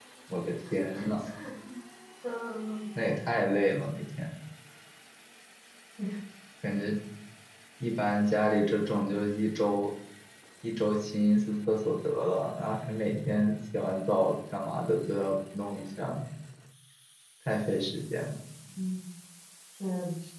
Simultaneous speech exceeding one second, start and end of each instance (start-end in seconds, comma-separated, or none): none